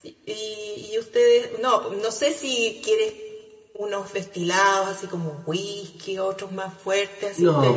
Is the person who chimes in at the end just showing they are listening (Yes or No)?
No